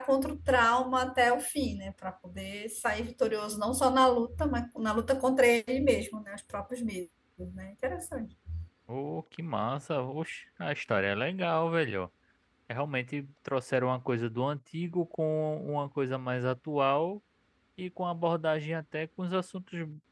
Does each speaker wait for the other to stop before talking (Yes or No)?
Yes